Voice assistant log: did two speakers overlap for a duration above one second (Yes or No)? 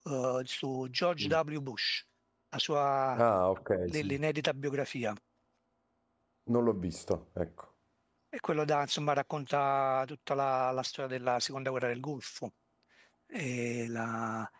No